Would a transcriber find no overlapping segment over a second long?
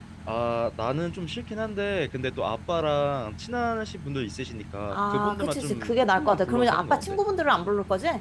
No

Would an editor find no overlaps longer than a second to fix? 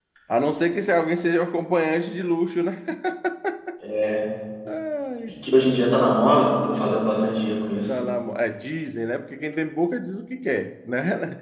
Yes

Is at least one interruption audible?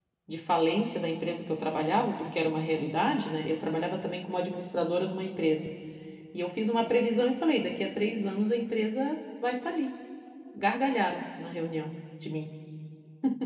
No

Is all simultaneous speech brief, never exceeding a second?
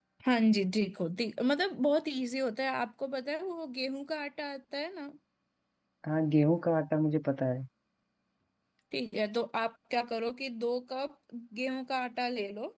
Yes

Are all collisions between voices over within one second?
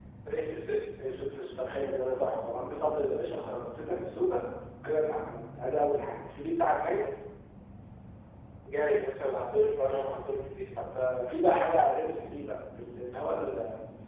Yes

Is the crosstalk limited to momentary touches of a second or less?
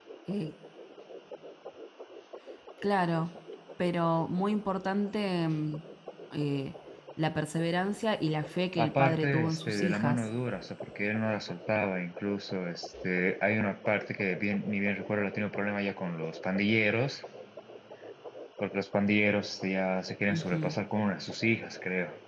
No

